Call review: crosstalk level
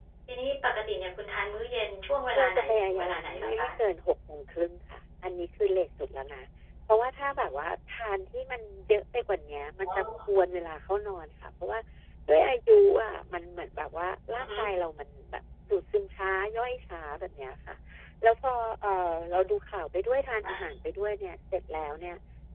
present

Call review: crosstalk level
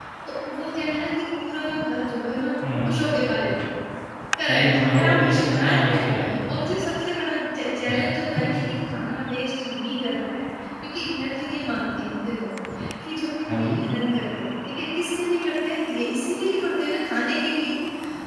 present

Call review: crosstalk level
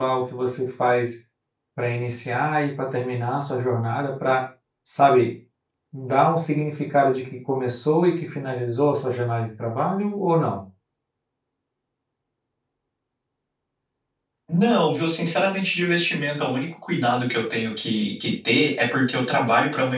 none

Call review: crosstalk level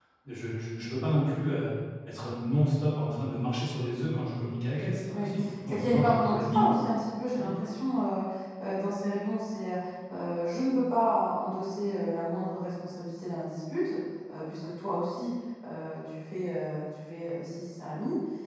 present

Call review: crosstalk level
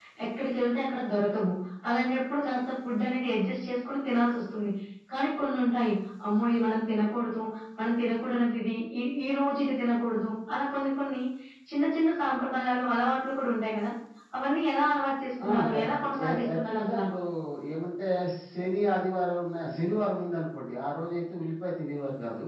present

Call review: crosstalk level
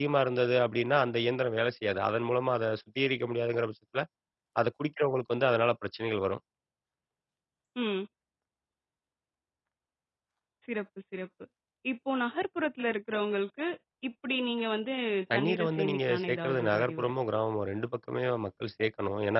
present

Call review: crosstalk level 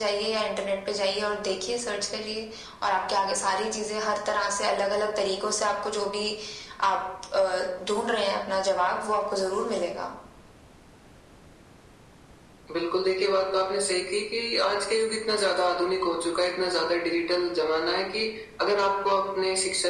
none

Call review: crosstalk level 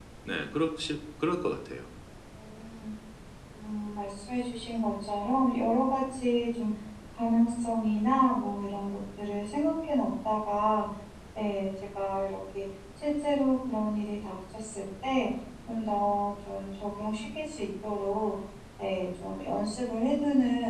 none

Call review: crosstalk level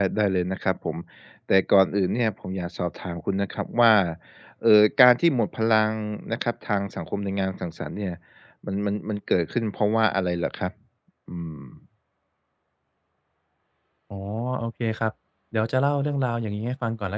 none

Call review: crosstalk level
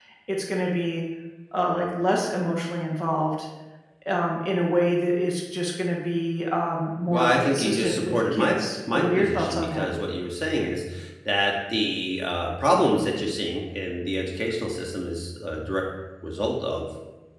present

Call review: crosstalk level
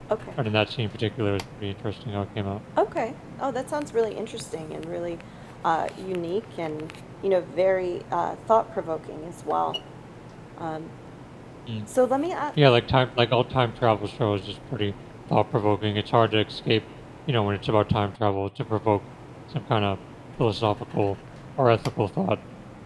none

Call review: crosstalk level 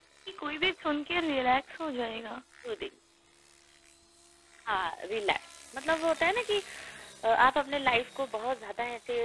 none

